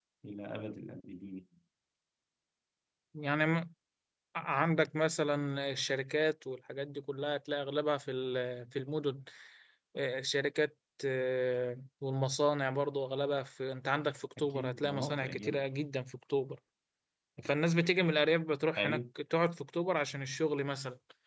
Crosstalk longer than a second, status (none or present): present